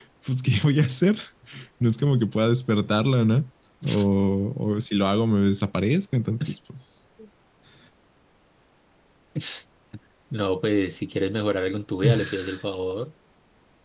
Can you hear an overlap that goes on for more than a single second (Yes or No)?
No